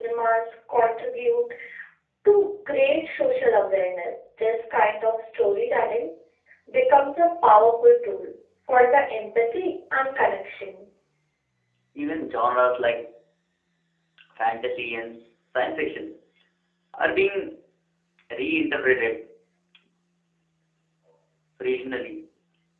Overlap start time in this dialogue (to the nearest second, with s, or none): none